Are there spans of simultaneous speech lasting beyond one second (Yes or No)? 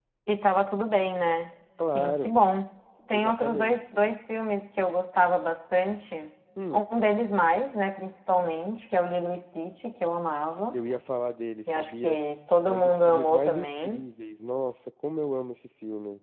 Yes